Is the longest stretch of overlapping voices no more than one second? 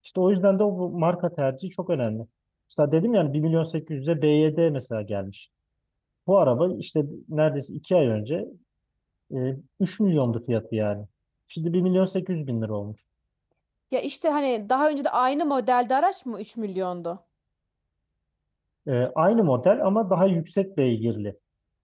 Yes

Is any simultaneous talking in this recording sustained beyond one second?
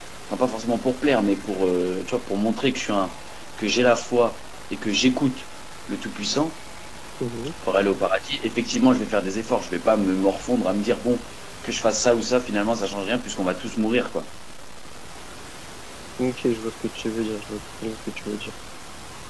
No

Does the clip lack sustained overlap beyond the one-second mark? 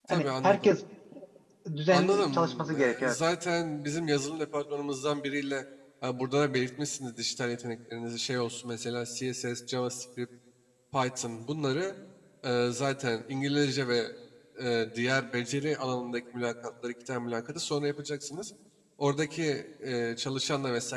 No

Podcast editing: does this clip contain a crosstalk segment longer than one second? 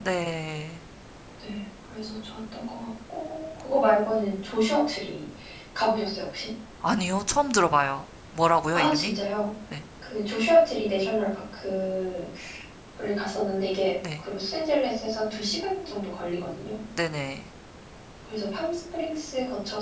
No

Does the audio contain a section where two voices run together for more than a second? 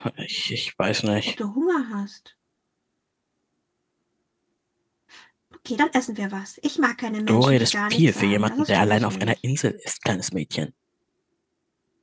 Yes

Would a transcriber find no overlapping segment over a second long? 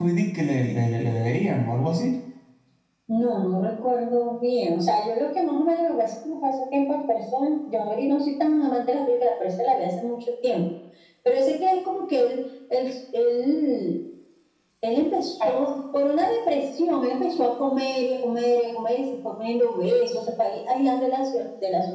Yes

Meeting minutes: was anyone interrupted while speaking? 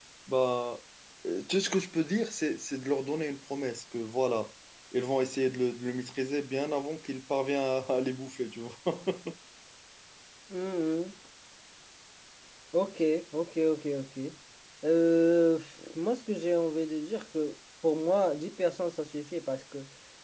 No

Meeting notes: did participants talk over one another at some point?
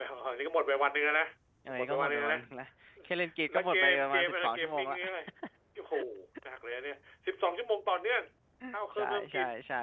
Yes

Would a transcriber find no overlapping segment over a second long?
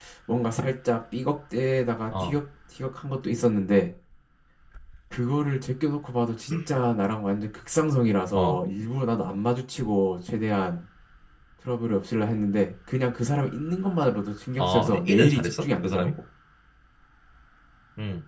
No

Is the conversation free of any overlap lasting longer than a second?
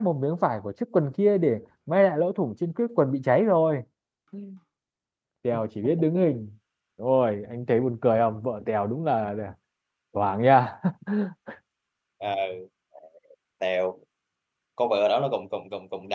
Yes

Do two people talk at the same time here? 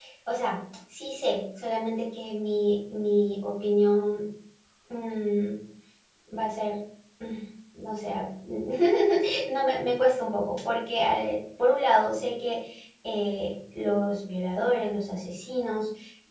No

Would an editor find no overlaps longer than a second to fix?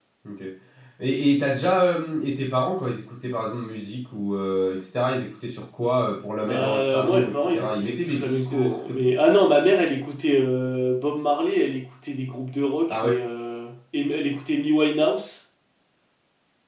No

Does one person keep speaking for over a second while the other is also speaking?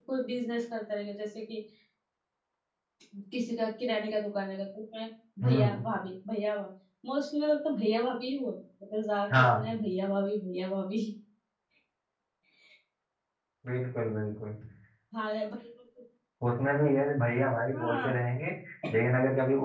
No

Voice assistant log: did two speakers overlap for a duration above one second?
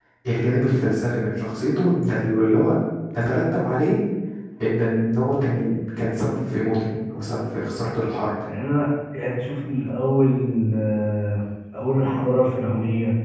No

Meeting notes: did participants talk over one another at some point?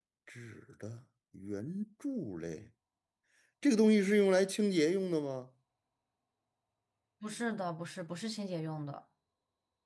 No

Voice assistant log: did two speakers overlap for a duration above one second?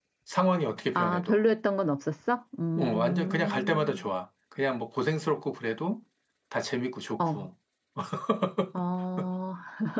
Yes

